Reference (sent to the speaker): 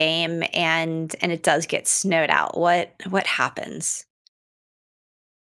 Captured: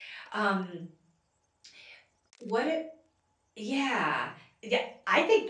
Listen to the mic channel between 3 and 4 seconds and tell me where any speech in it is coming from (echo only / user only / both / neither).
user only